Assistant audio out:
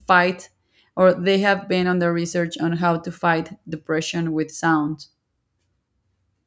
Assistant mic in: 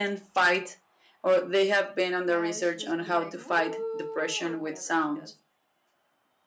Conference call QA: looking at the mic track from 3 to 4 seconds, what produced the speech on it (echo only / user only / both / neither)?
both